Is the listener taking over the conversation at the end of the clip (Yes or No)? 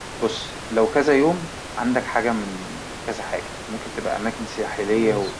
No